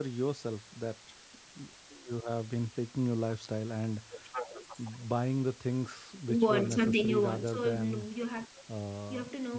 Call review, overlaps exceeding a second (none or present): present